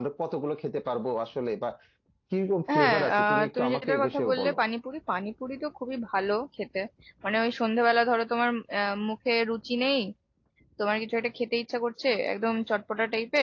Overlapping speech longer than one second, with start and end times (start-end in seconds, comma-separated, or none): 2.7-4.5